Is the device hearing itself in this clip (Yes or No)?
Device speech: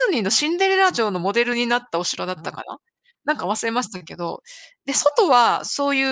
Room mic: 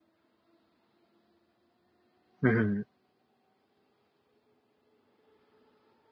No